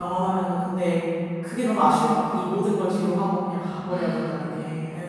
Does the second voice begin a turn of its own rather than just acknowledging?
Yes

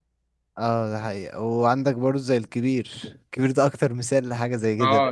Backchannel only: No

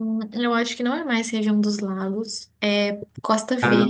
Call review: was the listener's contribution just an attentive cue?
Yes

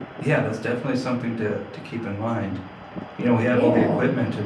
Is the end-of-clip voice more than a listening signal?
No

